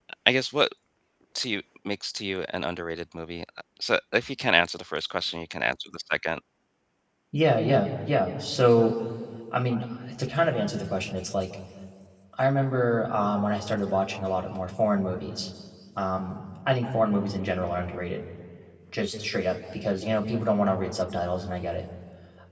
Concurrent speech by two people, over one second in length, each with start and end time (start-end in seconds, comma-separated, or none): none